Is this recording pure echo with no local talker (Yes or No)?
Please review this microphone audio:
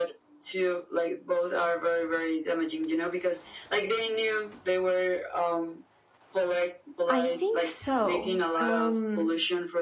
No